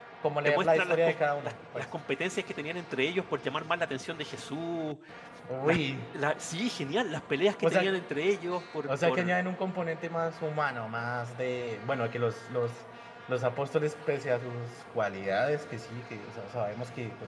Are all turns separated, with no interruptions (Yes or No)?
No